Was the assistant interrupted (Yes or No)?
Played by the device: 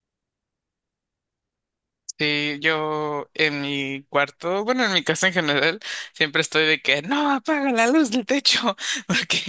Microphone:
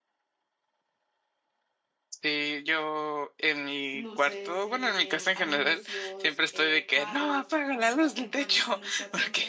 Yes